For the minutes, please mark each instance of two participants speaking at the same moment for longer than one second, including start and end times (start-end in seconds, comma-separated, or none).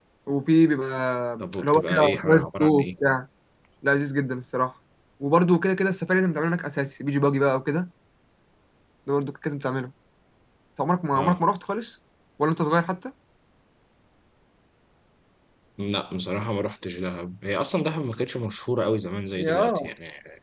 1.6-2.9